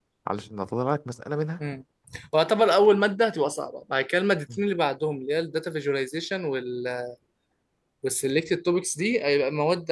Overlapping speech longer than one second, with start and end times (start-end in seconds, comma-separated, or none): none